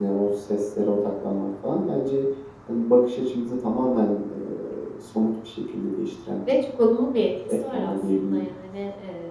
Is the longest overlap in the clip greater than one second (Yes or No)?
Yes